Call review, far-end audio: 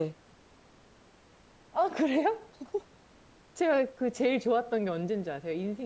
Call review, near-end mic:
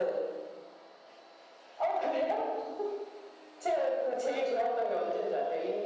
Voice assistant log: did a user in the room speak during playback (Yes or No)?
No